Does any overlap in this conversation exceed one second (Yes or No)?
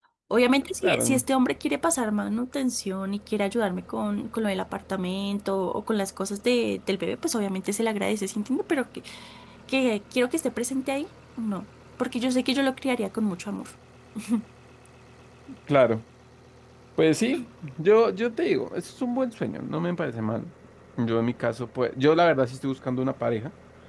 No